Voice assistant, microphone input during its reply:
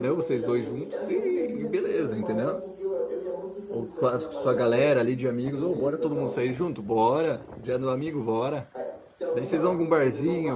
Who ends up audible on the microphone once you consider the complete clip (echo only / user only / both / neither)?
both